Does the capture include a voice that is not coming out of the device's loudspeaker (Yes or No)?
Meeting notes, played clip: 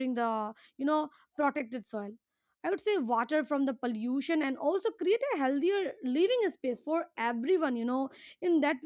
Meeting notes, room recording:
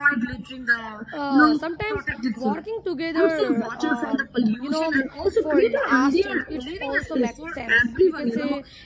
Yes